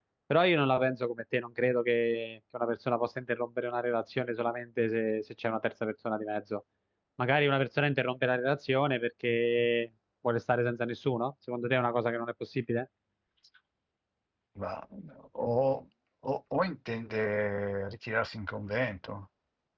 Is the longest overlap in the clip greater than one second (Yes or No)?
No